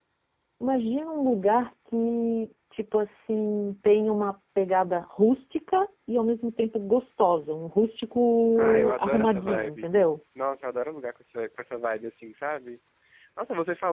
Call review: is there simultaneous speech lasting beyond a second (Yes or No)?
Yes